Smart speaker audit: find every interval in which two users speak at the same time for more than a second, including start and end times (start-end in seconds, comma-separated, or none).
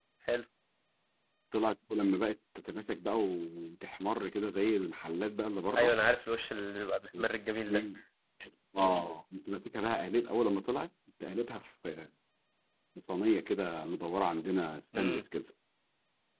none